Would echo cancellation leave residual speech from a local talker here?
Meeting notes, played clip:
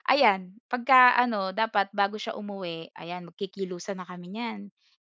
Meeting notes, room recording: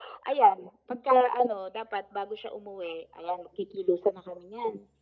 No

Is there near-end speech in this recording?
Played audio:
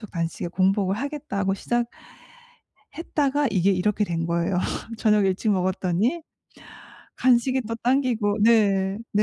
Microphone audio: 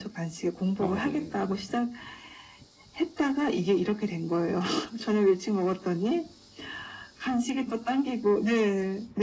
Yes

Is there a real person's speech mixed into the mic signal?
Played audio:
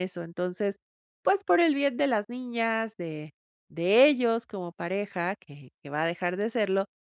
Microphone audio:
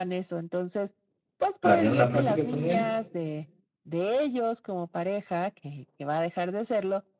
Yes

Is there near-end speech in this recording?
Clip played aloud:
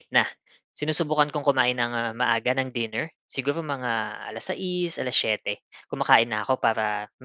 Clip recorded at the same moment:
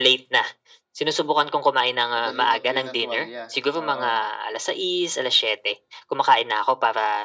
Yes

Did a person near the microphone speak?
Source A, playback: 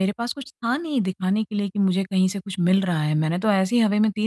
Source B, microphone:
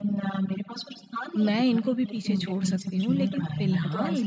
Yes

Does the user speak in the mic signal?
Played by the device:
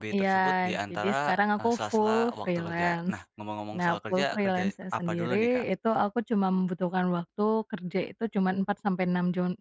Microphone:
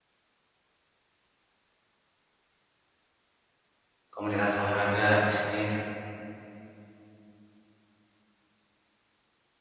Yes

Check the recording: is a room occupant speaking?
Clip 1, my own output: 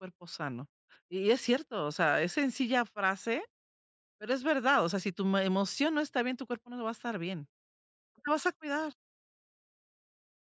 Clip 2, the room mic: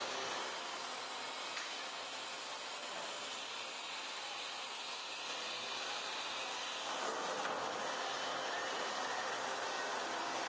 No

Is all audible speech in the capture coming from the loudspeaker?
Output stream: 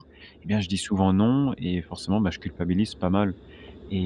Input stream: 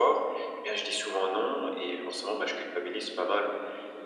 Yes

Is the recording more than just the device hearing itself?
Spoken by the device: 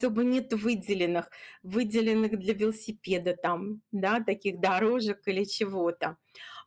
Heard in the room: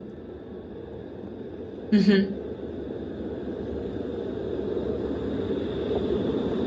Yes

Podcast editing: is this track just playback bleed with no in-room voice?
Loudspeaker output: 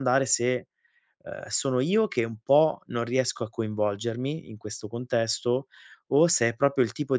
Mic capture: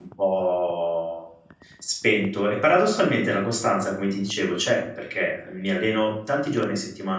No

